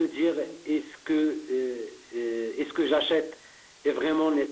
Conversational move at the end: listening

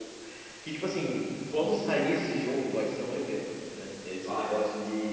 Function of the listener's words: listening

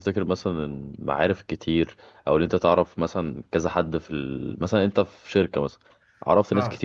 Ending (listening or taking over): listening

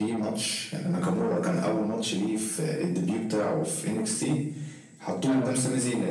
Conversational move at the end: listening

